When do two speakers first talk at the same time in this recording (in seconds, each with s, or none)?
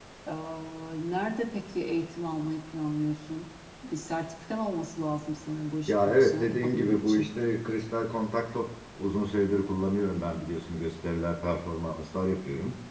5.9 s